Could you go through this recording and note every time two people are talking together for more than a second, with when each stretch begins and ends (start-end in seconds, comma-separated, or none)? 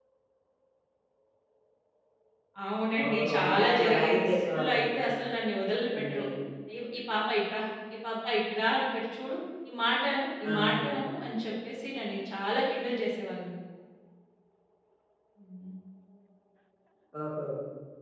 3.0-5.0